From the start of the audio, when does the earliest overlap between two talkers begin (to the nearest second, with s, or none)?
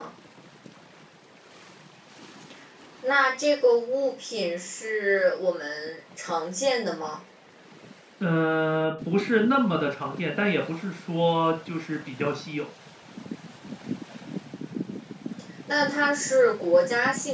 none